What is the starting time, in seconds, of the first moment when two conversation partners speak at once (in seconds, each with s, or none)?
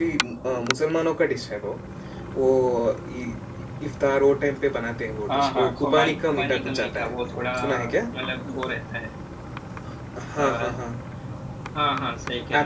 5.3 s